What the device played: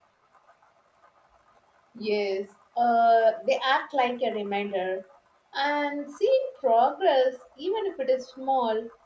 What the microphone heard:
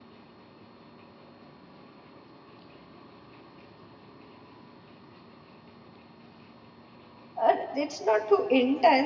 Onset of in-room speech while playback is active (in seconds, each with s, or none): 7.4 s